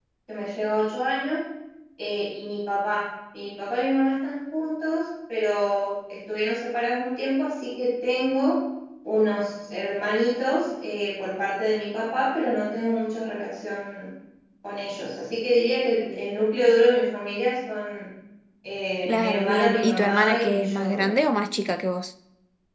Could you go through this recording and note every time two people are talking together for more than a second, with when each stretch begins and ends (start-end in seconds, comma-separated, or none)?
19.0-21.2